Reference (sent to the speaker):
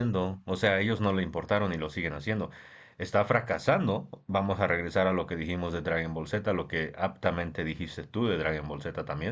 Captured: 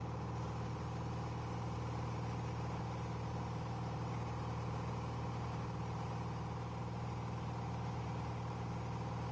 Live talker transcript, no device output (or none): none